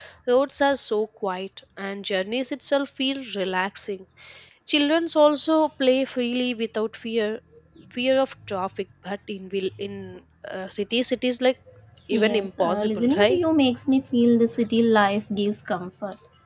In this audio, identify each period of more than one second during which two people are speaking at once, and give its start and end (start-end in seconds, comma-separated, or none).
12.1-13.4